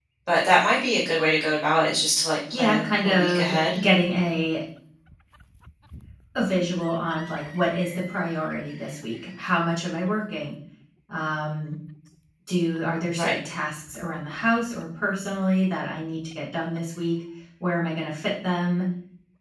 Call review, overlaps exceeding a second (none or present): present